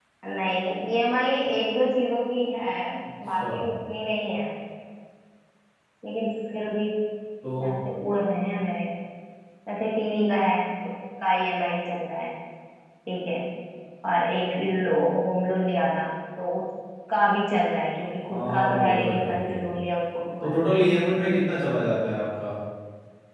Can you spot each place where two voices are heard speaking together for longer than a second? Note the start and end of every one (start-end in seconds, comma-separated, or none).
18.3-19.6